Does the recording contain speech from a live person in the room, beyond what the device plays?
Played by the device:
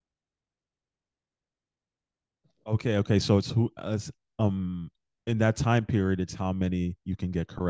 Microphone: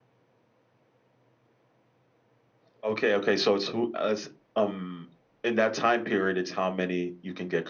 No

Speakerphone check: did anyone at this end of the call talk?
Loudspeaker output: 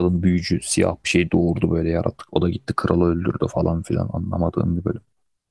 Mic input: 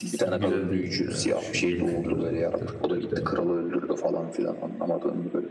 Yes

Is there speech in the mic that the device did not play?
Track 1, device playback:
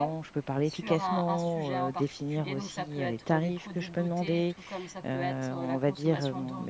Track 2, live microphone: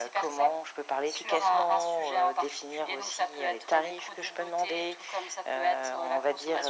No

